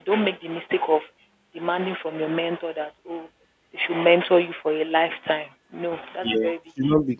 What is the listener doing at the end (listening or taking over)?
taking over